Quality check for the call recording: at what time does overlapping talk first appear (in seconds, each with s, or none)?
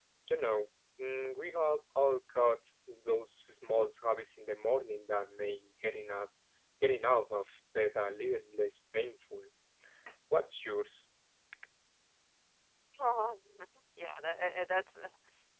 none